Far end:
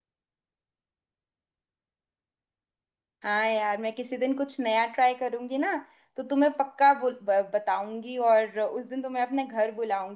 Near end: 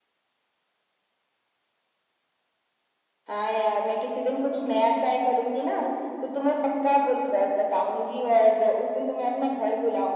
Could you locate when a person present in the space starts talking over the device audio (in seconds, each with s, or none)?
none